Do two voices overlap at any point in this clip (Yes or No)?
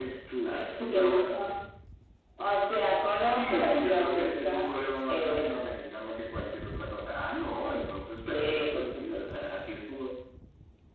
Yes